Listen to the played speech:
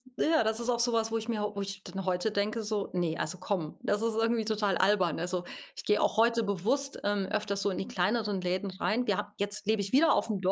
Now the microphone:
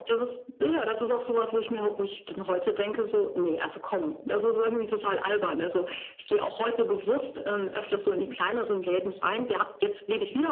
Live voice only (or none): none